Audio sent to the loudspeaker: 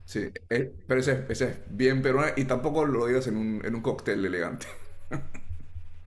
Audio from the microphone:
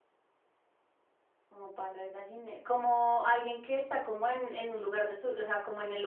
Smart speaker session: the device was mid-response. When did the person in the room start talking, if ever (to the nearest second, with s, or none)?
1 s